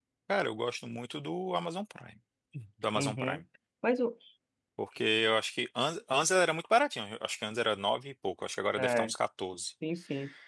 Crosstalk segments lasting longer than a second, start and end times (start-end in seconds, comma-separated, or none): none